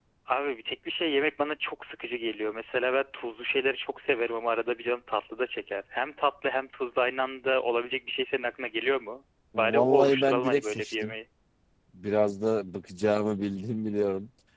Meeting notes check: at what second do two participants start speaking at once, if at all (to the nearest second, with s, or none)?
10 s